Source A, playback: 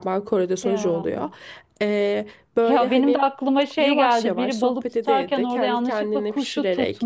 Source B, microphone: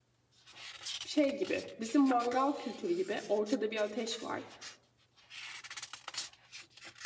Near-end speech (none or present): present